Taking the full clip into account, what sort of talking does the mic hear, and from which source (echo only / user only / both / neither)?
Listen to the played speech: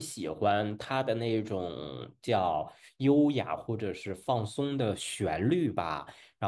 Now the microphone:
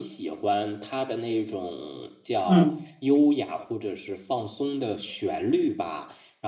both